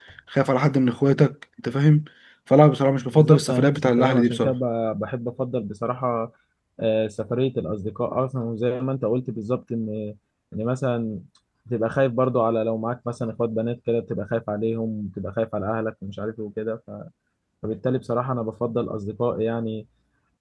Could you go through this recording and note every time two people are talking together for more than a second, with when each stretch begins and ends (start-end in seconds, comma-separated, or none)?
3.1-4.5